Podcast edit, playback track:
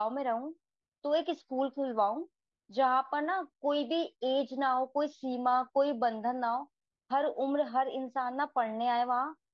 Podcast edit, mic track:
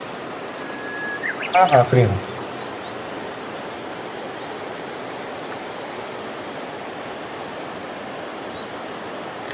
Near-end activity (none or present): present